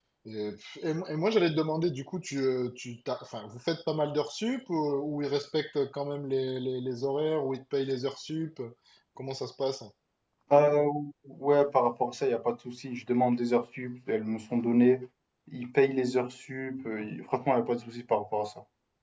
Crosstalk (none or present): none